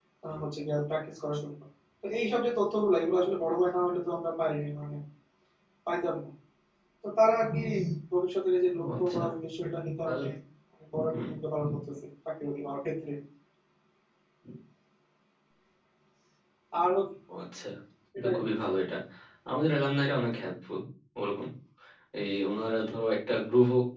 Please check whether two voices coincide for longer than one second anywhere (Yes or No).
No